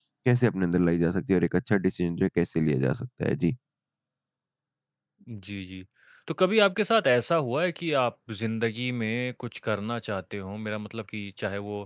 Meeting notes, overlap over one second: none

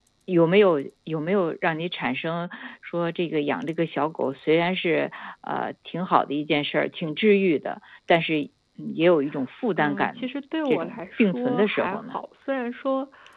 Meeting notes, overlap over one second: present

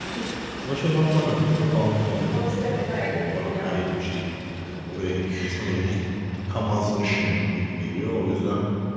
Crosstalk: present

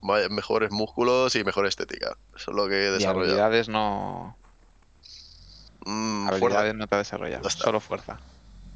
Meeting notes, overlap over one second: none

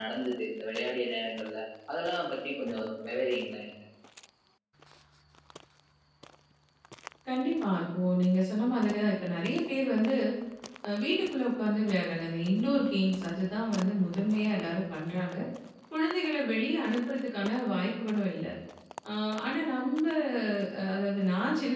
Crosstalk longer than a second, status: none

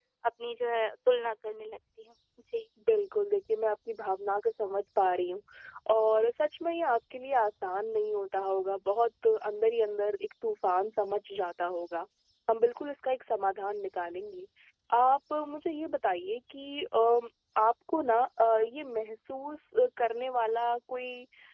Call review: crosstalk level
none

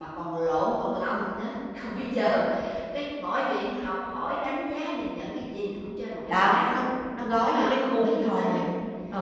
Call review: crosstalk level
present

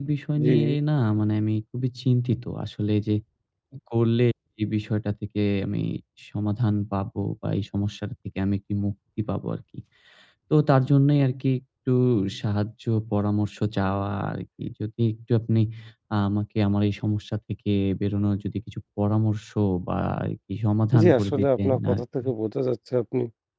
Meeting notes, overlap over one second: present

